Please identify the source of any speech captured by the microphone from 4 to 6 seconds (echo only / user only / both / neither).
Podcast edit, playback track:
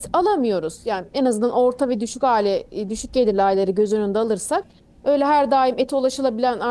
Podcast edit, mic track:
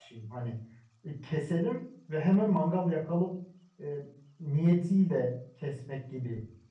user only